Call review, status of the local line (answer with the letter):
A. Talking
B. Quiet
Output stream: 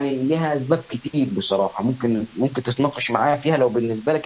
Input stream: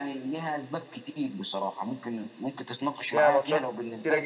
A